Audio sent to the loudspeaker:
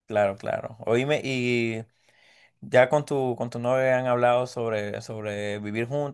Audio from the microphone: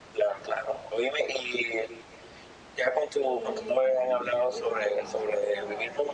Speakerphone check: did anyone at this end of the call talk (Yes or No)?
Yes